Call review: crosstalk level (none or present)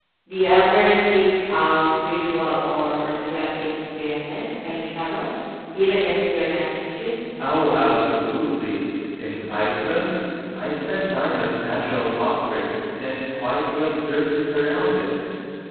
none